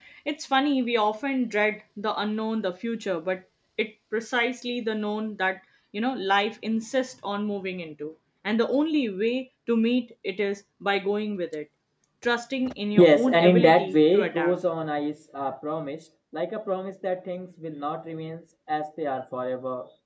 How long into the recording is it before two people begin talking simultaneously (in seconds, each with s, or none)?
12.9 s